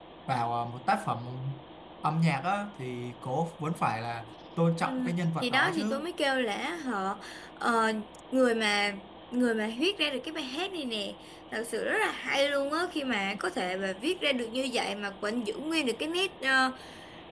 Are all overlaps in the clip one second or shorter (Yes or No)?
No